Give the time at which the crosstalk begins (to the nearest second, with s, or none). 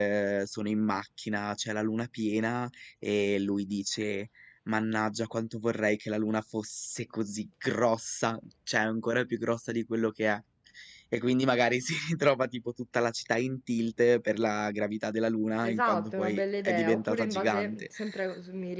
16 s